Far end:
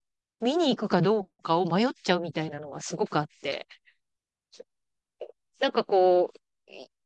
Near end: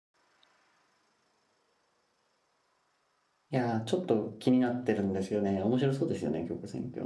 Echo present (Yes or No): No